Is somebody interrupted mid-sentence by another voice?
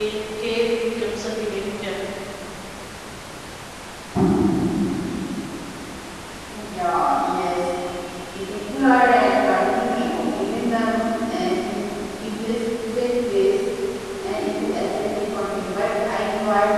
No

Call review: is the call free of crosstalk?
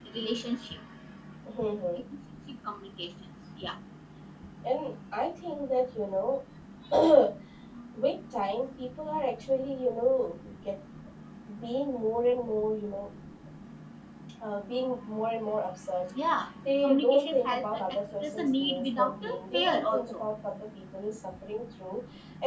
No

